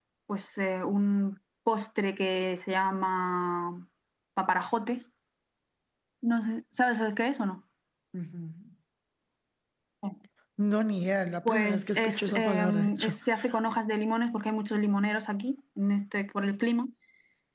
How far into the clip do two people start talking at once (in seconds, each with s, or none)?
11.4 s